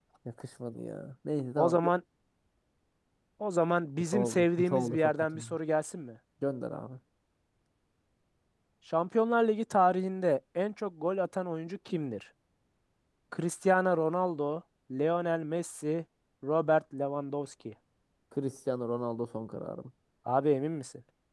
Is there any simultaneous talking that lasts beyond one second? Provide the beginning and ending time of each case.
4.0-5.5

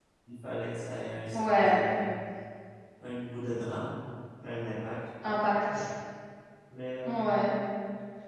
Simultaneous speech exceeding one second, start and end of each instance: none

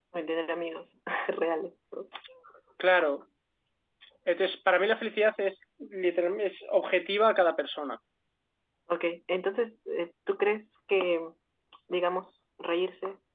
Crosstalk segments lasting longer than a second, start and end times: none

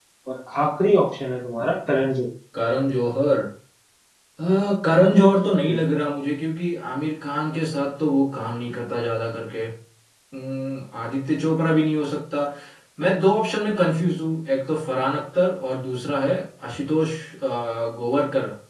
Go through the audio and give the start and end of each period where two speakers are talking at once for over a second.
none

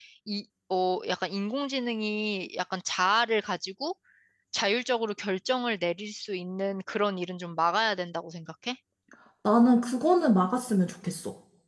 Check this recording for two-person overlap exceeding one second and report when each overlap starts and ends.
none

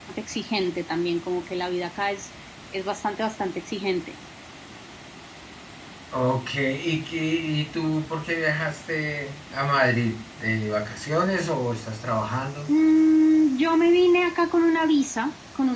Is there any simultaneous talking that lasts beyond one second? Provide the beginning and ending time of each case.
none

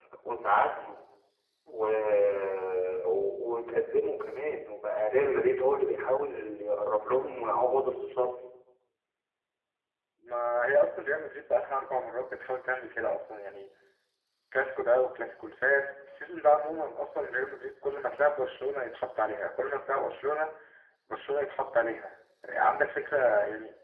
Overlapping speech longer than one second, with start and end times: none

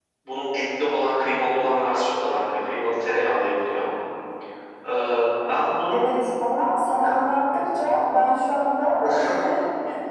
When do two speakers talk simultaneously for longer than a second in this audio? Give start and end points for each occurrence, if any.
none

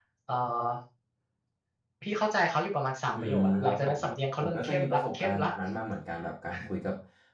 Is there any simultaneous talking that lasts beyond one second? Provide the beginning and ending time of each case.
3.1-5.5

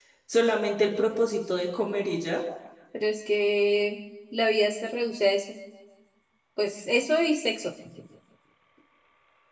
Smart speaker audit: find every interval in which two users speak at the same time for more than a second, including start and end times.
none

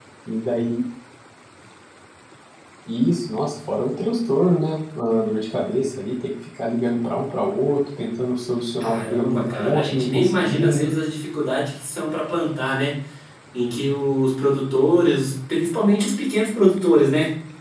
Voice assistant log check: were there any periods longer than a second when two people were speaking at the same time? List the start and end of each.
8.8-10.9

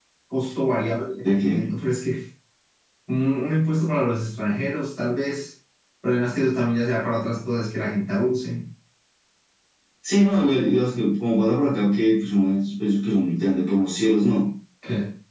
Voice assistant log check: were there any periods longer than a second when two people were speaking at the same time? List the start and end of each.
none

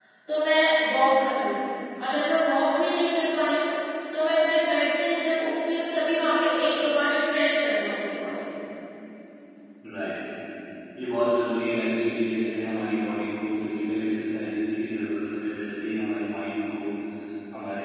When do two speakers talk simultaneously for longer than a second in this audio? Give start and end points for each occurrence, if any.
none

